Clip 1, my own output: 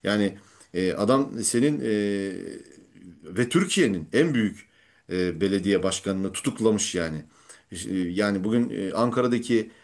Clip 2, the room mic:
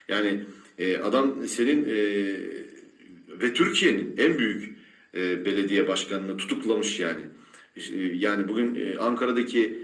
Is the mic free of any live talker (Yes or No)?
Yes